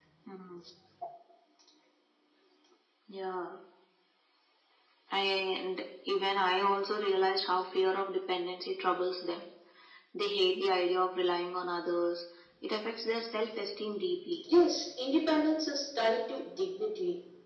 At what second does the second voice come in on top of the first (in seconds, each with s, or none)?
none